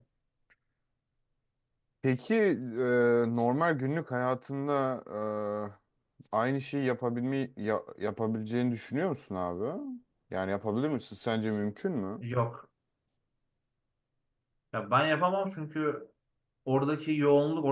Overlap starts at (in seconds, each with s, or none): none